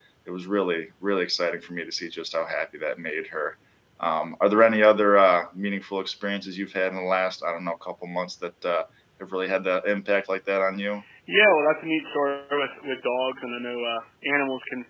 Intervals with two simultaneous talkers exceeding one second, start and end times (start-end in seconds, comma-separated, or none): none